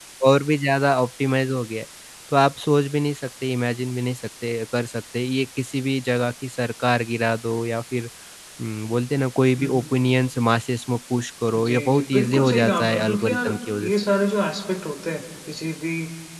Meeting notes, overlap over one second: present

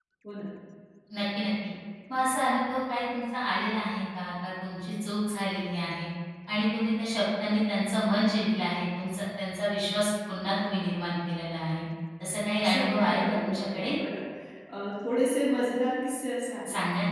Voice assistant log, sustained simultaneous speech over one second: present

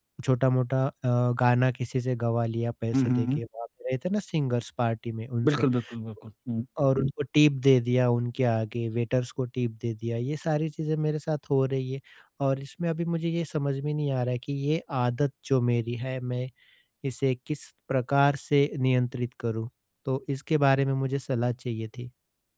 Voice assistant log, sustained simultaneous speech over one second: none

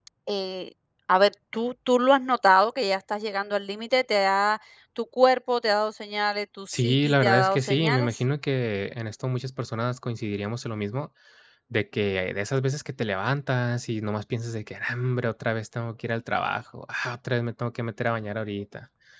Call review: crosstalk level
present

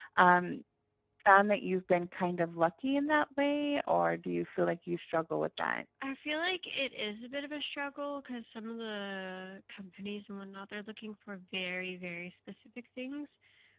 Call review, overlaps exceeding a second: none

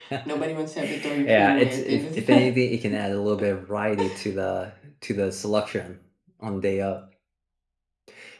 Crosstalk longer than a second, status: present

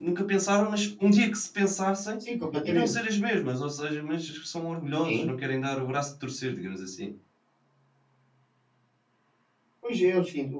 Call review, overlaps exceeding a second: none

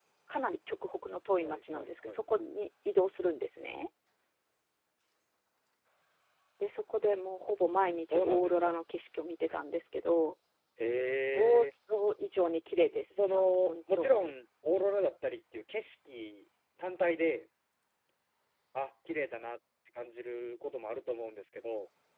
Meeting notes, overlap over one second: present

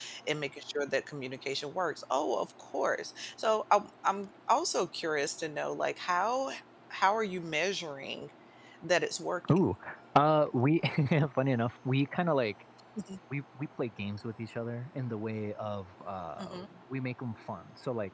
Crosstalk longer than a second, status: none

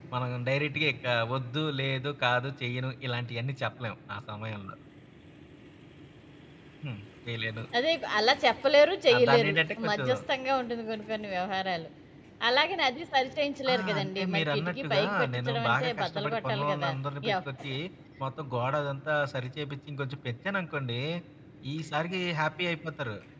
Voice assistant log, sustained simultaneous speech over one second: present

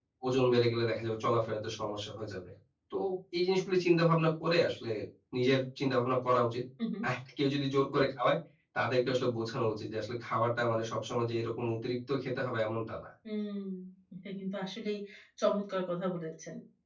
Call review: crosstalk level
none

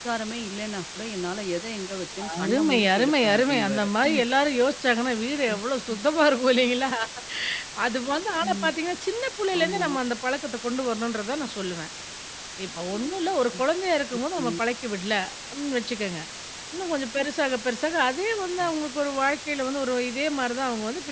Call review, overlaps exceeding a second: present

